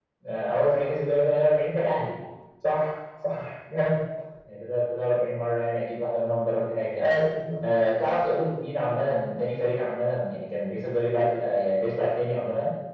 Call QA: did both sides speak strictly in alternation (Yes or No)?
Yes